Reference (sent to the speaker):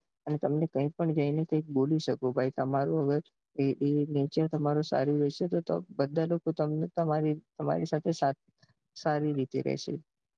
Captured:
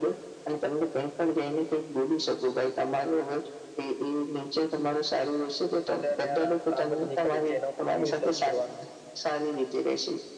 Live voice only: સાામભળાર યાર આ તો કામ જ નની કરે છે. એના ઉપર શું વિશ્વાસ કરવાનું.

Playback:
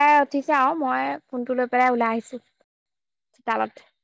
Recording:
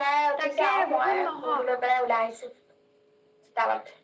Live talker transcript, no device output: তাকে বহুত মহ

